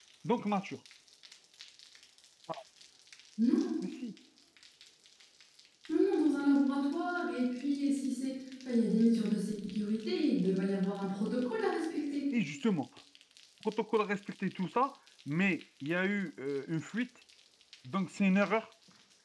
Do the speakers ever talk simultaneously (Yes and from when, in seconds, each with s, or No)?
No